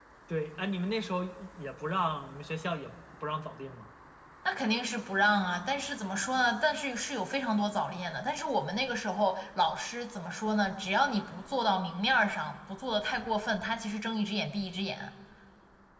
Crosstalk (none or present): none